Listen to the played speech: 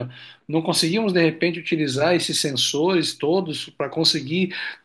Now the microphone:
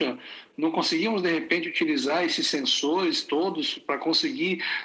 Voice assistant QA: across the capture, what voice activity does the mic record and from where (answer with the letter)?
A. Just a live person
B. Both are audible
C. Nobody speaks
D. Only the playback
D